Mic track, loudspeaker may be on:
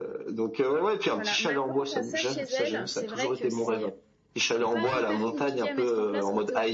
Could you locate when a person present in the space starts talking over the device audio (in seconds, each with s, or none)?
1.1 s